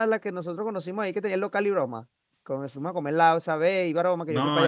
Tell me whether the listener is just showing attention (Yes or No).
No